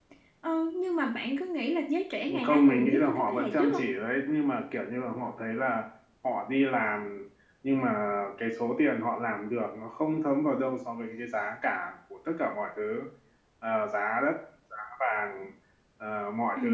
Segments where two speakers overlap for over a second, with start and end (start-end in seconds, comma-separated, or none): 2.4-3.8